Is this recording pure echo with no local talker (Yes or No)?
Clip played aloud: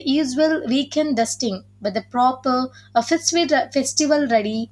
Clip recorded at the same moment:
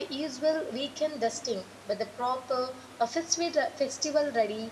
Yes